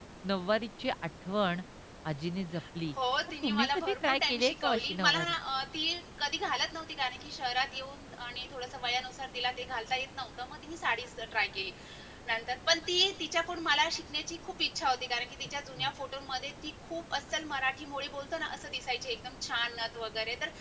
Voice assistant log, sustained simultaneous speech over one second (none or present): present